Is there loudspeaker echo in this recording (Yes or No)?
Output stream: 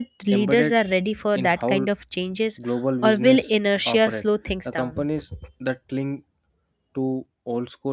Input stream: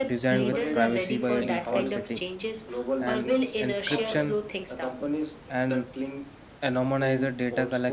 Yes